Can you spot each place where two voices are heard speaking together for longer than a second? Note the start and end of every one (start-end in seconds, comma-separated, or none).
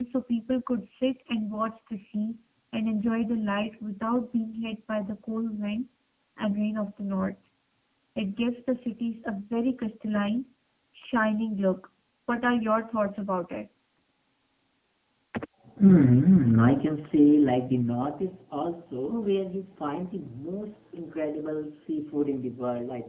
none